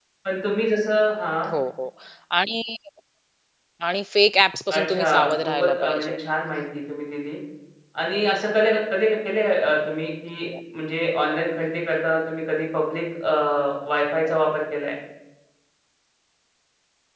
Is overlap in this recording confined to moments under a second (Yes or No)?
No